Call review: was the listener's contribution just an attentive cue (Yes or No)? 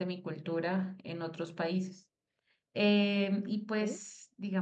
Yes